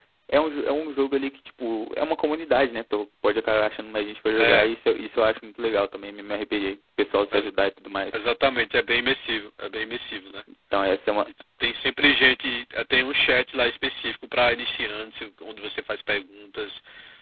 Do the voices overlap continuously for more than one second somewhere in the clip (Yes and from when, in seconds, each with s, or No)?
No